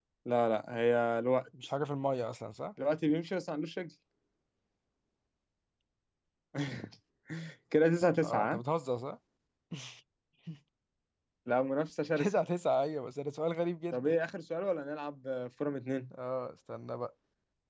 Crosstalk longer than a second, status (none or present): none